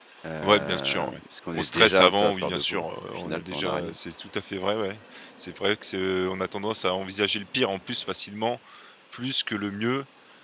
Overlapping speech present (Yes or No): Yes